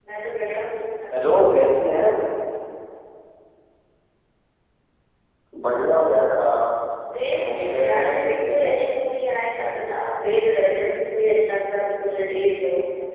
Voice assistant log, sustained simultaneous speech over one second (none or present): present